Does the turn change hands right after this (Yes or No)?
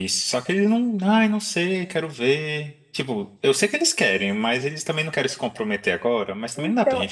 Yes